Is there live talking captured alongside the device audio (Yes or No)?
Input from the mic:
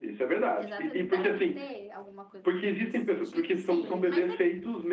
Yes